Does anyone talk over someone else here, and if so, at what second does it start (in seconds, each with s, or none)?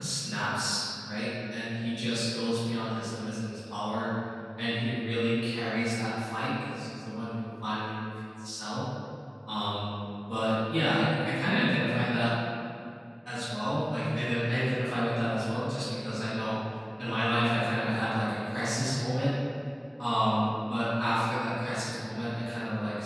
none